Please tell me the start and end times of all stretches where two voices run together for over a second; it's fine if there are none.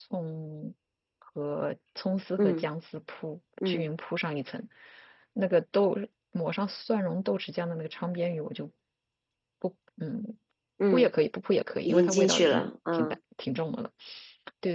11.8-13.2

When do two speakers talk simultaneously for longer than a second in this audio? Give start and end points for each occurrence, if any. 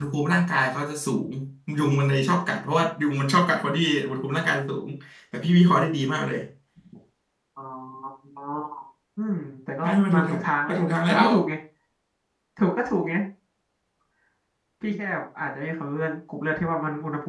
9.8-11.3

